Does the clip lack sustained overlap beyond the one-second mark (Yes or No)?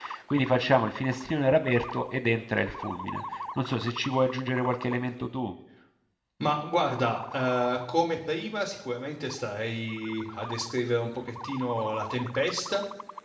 Yes